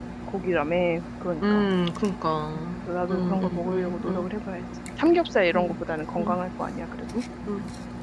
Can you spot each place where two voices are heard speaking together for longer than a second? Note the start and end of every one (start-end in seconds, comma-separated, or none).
2.8-4.3